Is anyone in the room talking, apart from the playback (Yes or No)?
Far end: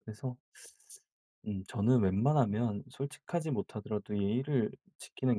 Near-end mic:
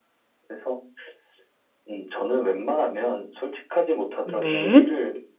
Yes